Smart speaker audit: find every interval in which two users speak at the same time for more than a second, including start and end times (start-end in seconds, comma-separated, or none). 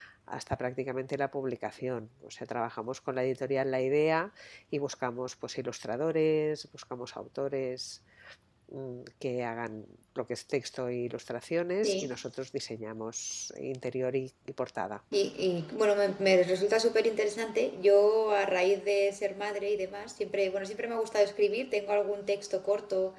none